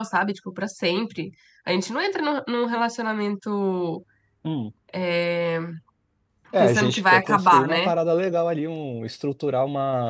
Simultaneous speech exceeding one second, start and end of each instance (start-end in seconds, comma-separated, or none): 6.6-7.9